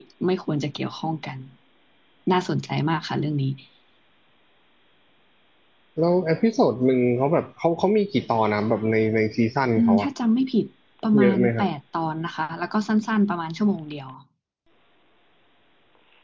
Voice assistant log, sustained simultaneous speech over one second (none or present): none